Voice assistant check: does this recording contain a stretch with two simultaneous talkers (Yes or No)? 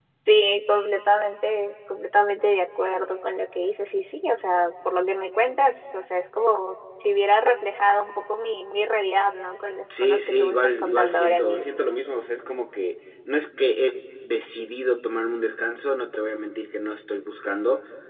Yes